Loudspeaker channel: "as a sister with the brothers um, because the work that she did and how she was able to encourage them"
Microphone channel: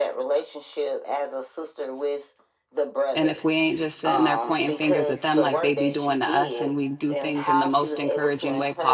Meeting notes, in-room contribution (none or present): present